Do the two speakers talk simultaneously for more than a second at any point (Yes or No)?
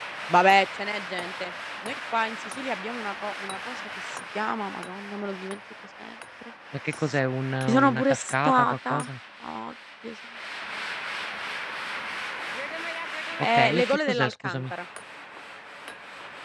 Yes